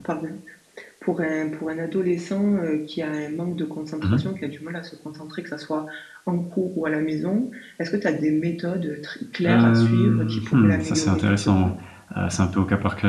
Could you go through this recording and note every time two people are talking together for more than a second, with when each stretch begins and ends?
9.4-11.7

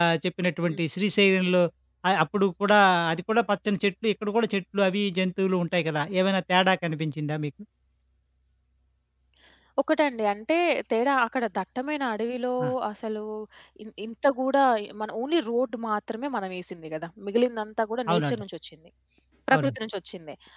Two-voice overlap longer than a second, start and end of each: none

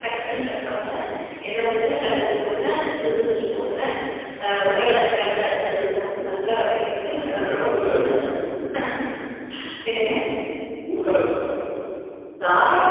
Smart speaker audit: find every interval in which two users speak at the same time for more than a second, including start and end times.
7.3-8.5

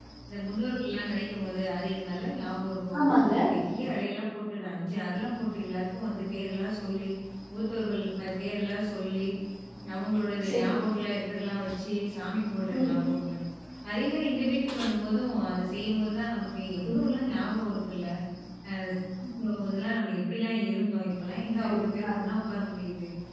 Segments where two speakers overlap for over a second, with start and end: none

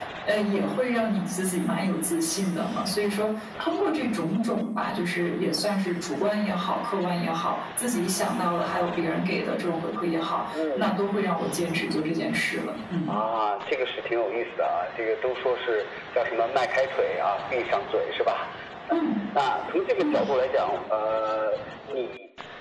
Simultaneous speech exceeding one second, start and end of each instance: none

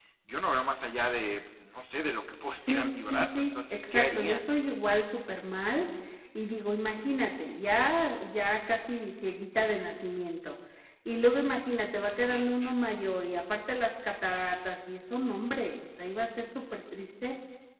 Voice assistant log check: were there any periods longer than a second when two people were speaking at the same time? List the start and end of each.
2.7-4.4

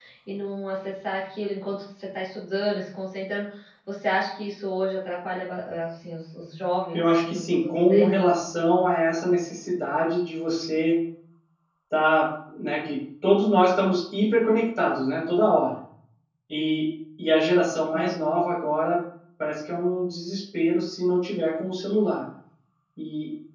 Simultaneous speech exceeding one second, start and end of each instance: 6.9-8.2

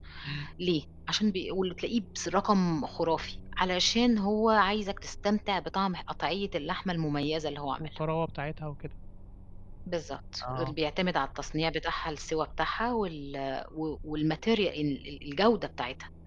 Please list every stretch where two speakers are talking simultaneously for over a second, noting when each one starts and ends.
none

